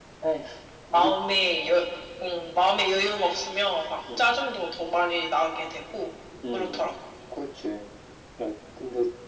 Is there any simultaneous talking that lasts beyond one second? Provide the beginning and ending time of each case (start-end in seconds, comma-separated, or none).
none